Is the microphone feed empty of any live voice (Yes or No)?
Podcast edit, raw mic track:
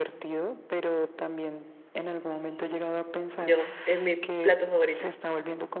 No